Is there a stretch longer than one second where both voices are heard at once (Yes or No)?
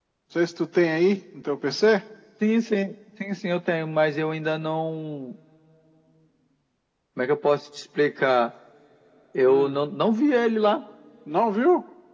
No